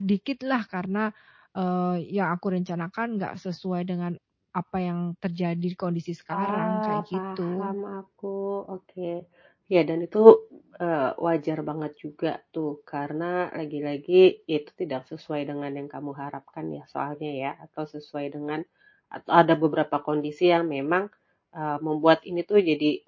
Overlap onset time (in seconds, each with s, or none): 6.3 s